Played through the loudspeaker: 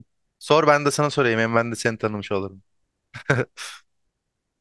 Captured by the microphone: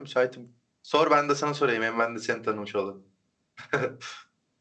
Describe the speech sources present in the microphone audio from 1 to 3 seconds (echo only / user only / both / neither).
echo only